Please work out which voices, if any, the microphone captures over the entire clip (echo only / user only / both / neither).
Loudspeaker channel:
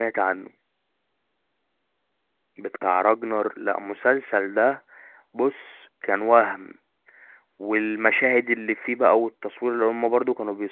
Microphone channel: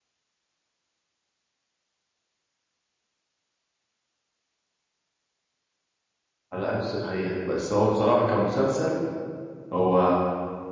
user only